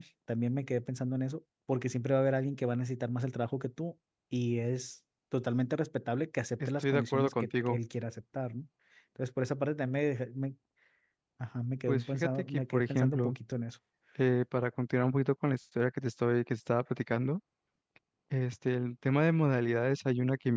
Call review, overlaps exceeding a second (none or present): present